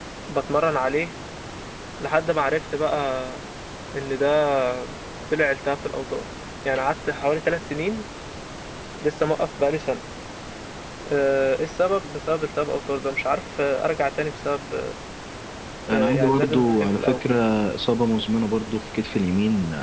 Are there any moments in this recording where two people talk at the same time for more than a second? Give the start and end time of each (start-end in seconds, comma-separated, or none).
15.9-17.2